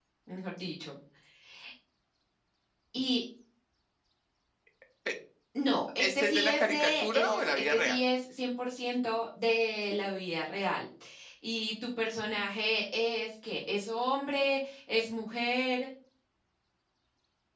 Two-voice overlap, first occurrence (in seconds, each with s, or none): 6.0 s